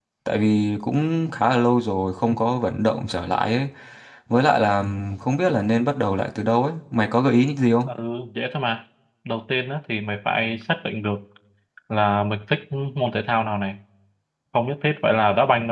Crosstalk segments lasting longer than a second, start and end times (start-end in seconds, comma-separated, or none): none